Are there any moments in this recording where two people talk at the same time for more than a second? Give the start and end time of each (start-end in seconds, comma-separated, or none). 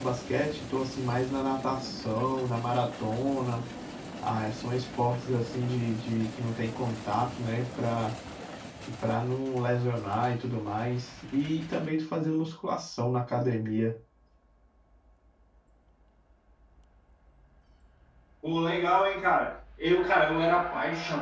none